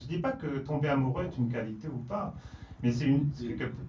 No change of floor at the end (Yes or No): Yes